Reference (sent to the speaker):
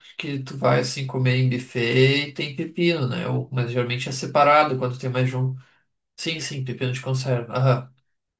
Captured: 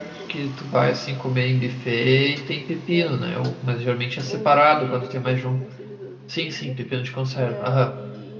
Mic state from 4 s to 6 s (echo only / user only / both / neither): both